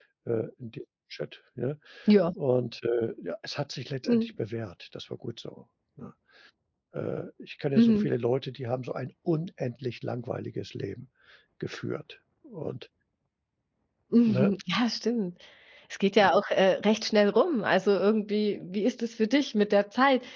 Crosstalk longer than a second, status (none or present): none